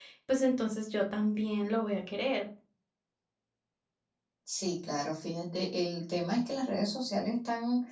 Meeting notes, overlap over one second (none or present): none